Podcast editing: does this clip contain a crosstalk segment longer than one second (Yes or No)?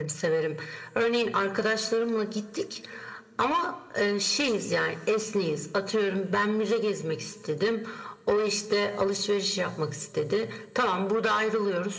No